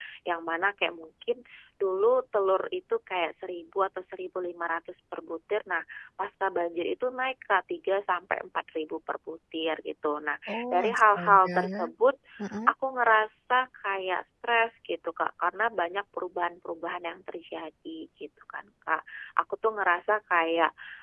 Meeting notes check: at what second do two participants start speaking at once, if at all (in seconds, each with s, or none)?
10.5 s